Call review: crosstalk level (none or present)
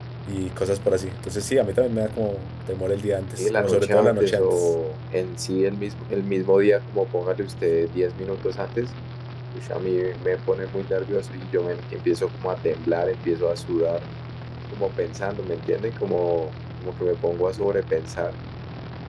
present